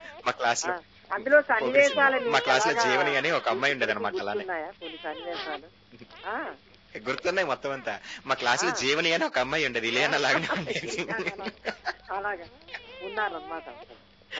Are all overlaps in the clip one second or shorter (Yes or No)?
No